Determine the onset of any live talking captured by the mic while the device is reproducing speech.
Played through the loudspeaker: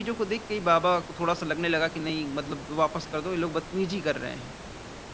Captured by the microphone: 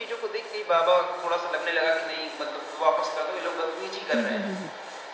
4.1 s

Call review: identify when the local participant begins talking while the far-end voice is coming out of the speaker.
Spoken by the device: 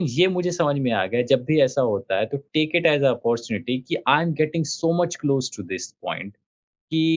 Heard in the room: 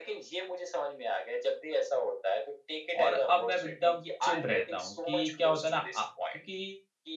3.0 s

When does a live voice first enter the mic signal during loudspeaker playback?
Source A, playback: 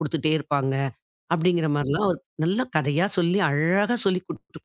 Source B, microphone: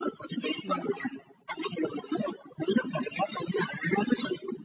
0.6 s

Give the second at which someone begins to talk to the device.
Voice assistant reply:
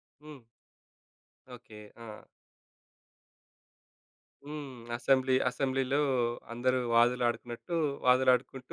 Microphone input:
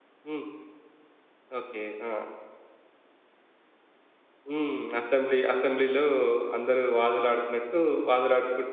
none

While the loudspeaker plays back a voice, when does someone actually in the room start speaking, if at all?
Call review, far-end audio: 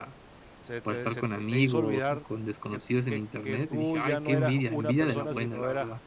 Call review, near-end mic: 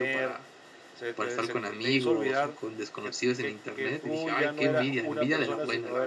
none

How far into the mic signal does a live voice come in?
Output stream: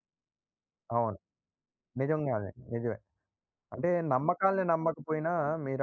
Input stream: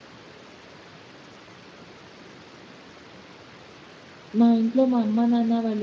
4.4 s

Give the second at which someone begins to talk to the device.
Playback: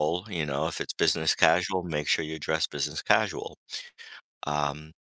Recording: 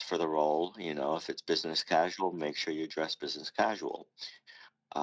none

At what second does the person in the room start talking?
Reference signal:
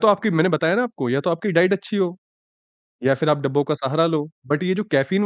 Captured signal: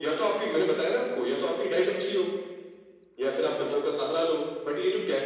none

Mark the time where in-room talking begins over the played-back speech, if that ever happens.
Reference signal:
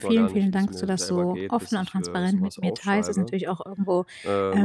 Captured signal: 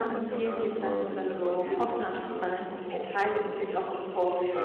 0.8 s

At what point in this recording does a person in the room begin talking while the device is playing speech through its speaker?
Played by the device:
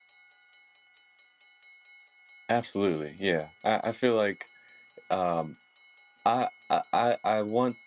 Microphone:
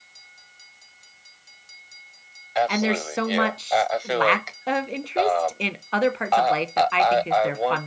2.7 s

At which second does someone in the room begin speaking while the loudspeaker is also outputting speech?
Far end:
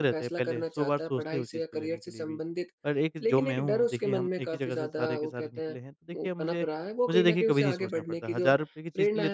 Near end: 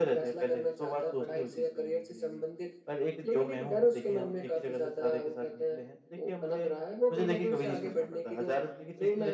none

